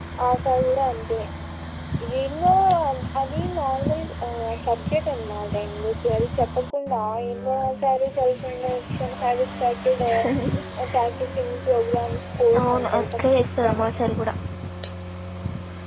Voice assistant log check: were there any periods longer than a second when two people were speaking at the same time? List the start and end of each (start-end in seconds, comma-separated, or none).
12.6-13.9